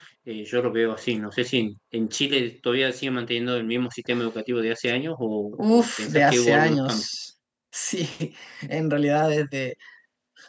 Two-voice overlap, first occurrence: 5.5 s

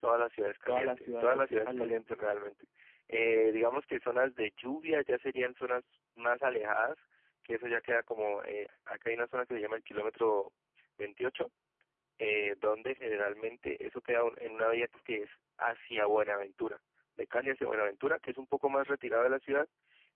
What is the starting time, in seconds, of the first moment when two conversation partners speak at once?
0.7 s

